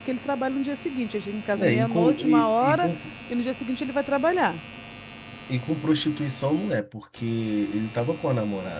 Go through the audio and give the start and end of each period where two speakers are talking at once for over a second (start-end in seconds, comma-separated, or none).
1.6-2.9